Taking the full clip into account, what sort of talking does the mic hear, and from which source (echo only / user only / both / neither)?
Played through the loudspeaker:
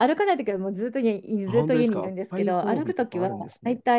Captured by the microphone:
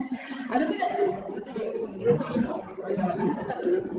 echo only